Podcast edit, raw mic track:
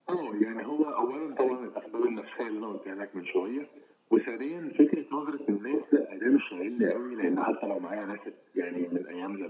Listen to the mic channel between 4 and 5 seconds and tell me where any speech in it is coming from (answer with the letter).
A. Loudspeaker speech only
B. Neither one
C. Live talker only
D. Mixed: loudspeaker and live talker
A